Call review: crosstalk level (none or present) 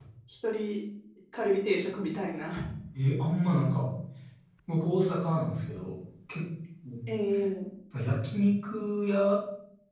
none